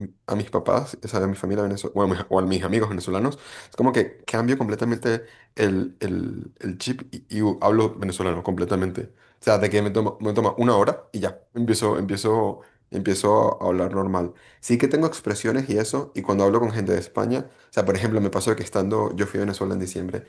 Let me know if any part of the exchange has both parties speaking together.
No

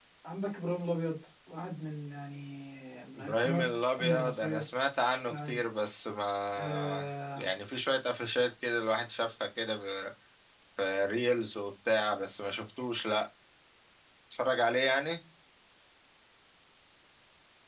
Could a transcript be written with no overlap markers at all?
No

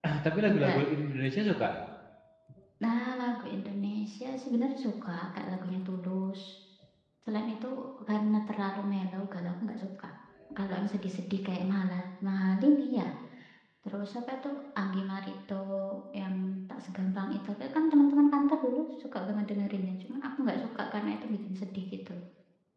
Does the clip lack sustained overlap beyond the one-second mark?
Yes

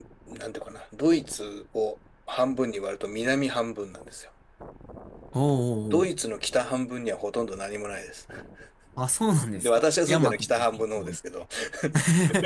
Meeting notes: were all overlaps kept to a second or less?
No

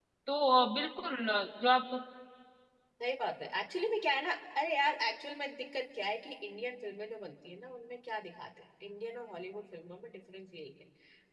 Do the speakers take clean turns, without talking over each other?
Yes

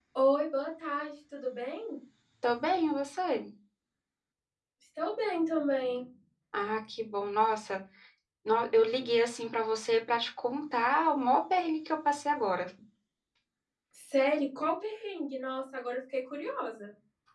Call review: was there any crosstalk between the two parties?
No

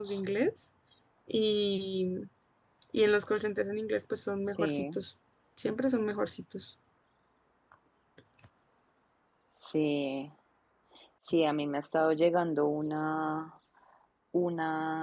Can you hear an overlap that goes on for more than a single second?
No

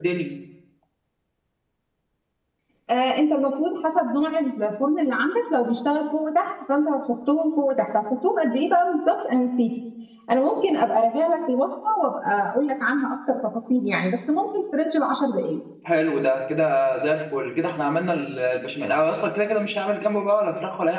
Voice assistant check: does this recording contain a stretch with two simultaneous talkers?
No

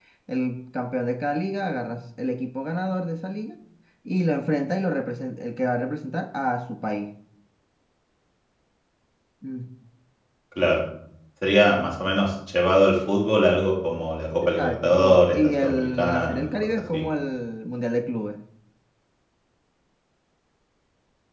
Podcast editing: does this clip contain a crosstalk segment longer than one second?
Yes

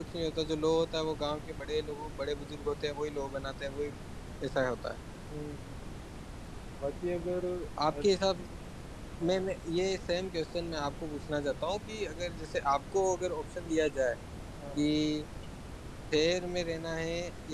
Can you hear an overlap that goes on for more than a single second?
No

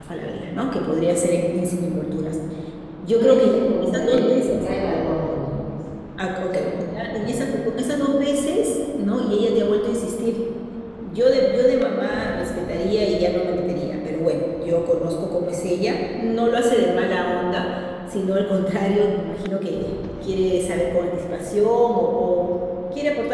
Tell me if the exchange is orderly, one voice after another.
No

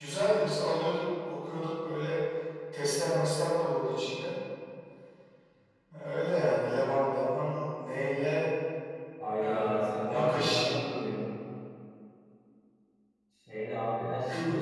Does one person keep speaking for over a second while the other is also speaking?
Yes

